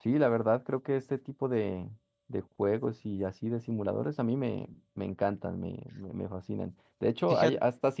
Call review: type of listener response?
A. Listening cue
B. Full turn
A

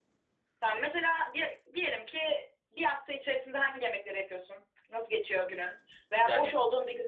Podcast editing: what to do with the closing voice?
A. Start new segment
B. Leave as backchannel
B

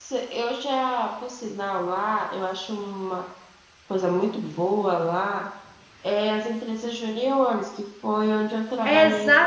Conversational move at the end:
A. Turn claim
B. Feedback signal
A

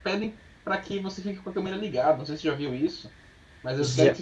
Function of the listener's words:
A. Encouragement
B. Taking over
A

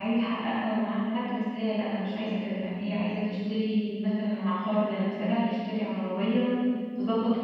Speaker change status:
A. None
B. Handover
A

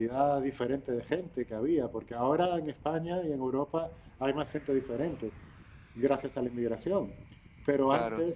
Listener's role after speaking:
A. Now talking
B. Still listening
B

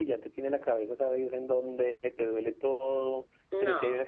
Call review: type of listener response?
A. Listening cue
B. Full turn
A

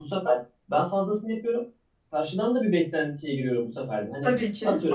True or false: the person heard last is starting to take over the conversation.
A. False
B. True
A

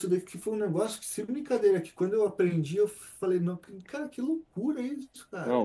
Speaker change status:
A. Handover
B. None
B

